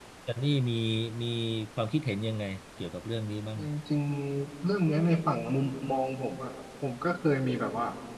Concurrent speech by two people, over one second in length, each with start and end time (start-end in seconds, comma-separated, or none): none